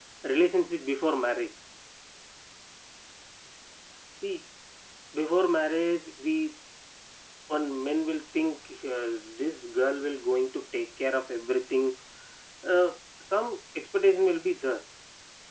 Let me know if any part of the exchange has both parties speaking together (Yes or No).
No